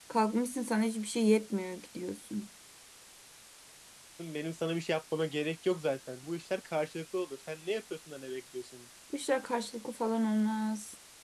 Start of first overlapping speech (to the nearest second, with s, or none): none